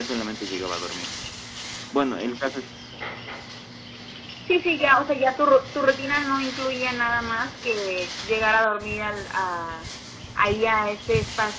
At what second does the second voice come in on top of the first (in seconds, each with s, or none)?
none